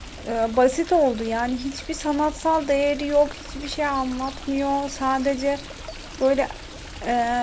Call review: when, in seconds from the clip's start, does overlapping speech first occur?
none

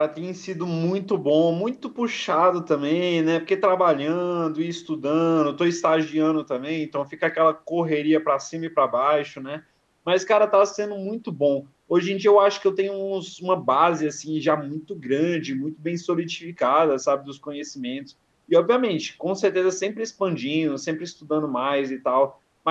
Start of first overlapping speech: none

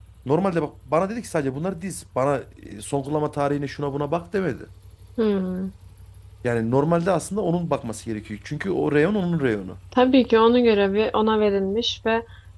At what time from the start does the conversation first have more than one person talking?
none

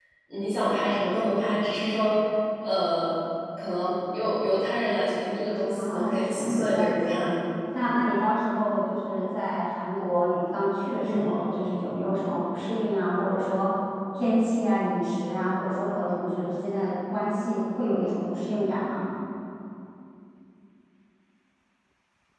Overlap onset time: 5.8 s

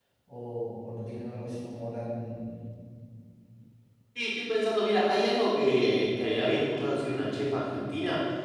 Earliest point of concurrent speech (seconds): none

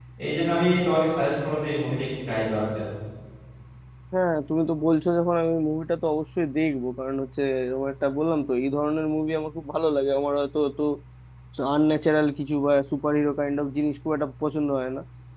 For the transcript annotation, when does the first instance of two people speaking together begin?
none

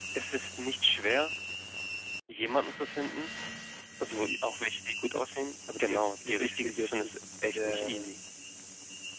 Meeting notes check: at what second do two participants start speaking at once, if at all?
5.8 s

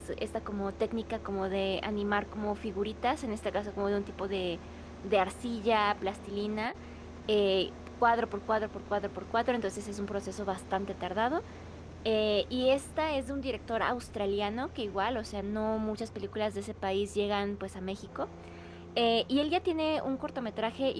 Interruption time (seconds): none

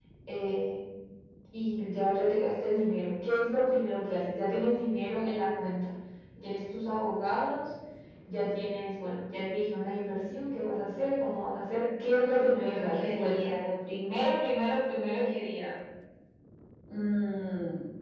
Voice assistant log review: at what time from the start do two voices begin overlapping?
12.0 s

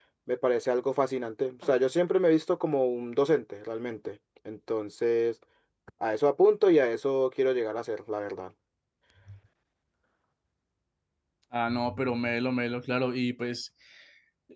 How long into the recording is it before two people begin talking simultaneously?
none

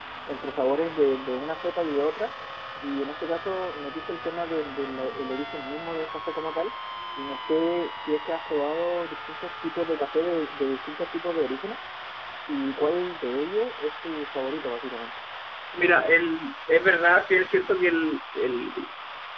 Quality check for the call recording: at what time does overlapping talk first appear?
none

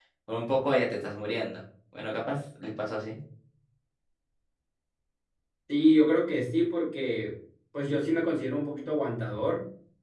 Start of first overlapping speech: none

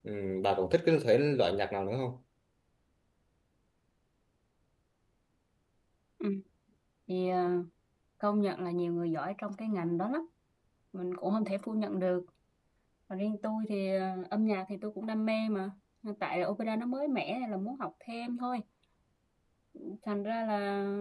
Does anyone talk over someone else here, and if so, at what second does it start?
none

